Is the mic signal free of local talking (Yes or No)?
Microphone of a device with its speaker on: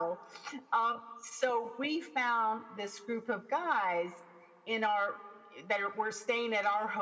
Yes